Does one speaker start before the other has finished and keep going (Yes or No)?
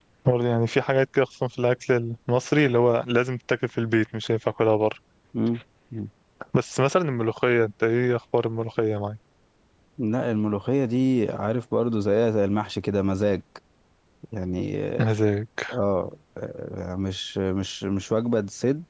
No